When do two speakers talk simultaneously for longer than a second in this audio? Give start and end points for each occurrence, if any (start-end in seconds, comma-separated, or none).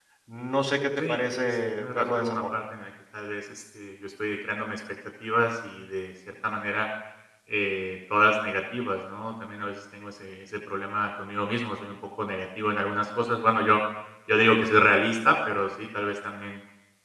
1.0-2.4